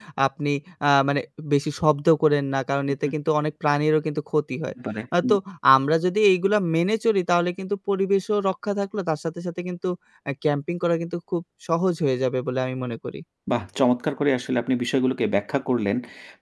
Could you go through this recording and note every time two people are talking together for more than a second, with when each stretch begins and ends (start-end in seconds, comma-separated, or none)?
none